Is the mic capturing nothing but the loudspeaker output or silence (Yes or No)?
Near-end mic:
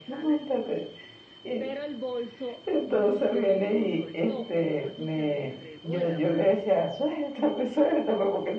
No